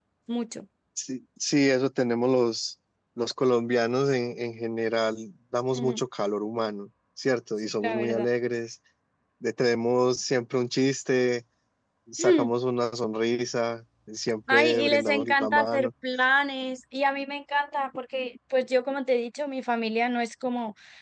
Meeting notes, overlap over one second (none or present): present